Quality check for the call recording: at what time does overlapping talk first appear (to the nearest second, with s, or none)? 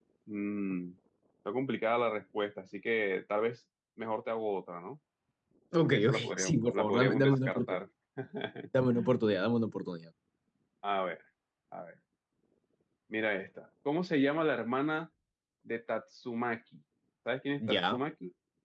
6 s